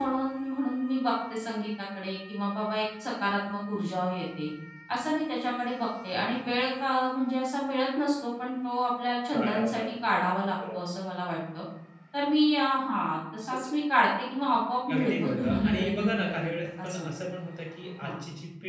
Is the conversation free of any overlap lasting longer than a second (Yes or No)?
No